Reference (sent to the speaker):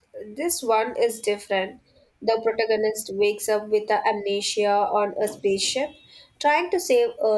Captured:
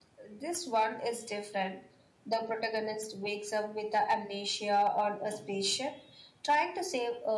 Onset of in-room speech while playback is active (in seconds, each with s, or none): none